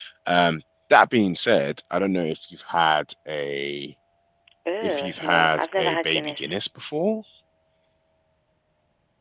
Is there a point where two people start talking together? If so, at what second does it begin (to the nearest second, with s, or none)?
5 s